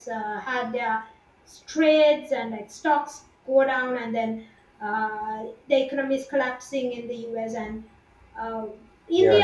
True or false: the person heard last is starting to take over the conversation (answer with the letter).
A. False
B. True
A